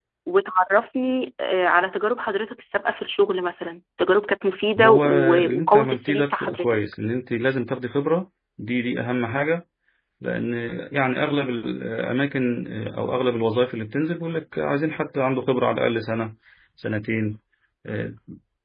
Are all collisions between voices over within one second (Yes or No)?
No